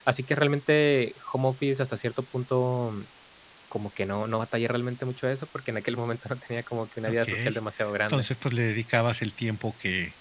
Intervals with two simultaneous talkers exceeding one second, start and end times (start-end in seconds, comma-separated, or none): none